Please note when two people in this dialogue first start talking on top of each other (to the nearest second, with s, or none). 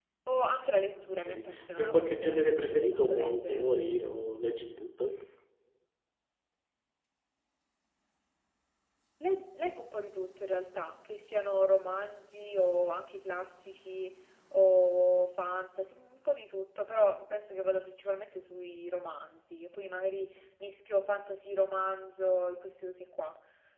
1 s